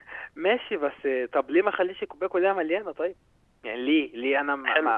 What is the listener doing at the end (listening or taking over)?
taking over